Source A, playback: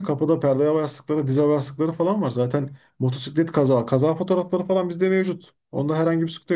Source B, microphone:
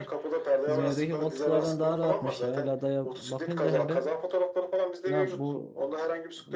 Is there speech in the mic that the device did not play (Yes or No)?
Yes